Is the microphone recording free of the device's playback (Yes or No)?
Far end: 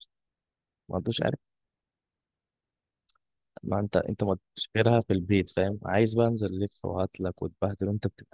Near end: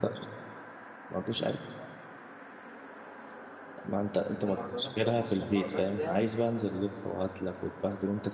No